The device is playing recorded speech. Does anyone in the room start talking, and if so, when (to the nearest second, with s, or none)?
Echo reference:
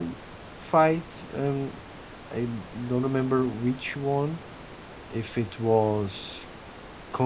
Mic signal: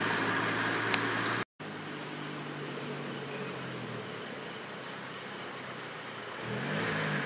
none